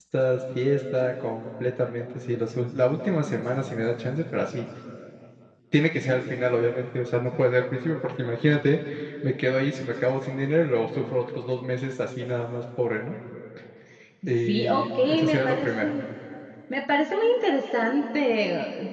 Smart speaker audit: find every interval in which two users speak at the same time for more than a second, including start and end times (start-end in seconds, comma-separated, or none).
14.5-15.9